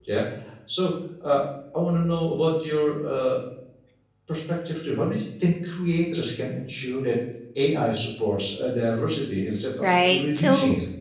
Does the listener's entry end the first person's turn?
Yes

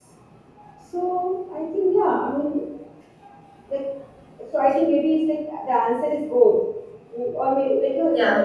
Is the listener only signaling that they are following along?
Yes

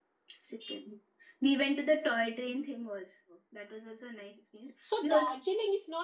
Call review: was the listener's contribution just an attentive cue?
No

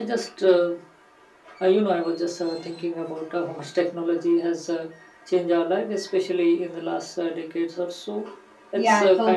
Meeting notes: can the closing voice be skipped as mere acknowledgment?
No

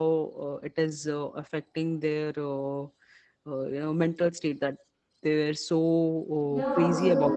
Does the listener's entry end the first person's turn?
Yes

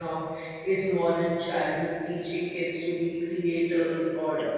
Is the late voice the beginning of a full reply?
No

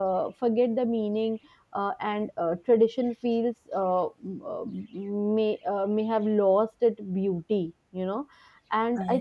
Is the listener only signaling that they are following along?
Yes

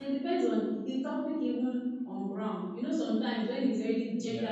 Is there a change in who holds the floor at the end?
No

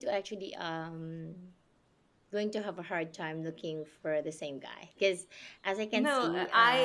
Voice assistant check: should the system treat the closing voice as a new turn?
Yes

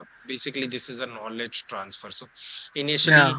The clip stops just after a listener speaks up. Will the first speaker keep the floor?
Yes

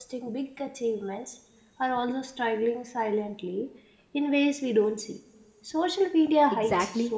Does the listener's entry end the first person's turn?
Yes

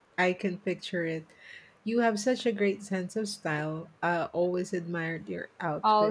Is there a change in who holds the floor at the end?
Yes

